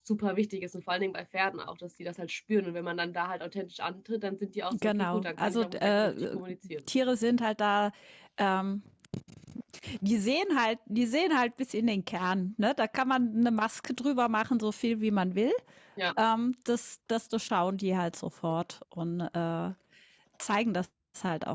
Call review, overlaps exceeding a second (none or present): present